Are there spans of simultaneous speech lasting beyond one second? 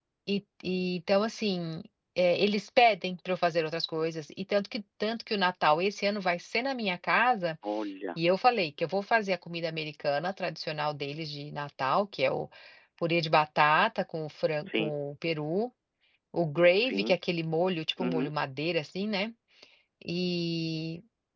No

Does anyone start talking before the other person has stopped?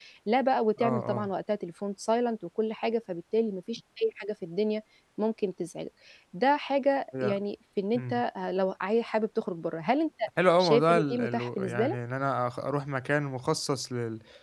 Yes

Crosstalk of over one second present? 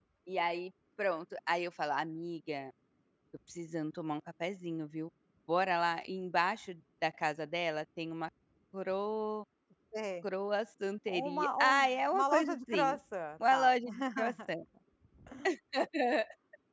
Yes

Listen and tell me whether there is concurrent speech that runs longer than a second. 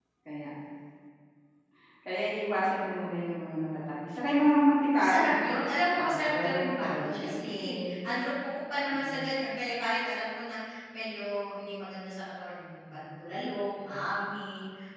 Yes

